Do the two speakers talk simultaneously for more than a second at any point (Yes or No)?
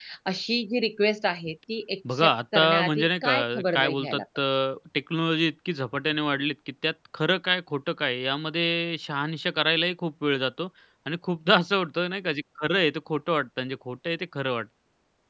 Yes